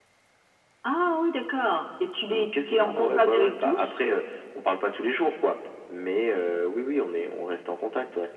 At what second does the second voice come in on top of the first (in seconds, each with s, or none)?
2.3 s